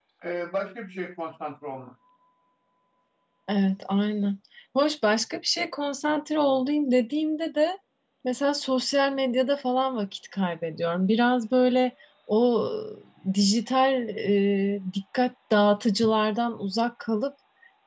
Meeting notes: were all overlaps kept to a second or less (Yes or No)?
Yes